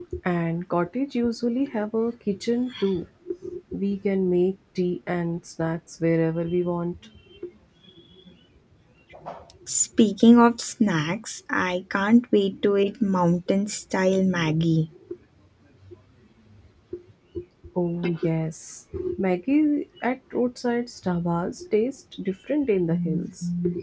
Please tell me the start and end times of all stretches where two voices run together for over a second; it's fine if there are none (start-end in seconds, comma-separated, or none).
none